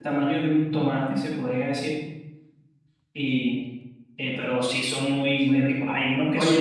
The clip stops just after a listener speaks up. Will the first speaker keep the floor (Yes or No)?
No